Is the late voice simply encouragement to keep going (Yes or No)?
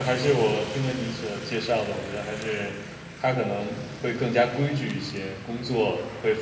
Yes